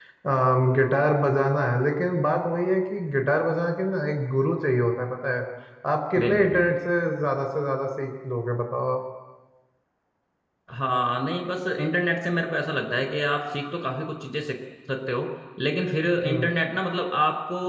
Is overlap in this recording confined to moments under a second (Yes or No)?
Yes